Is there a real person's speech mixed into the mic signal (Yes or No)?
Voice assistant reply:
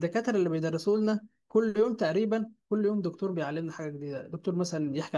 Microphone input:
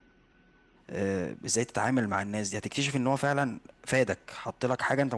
Yes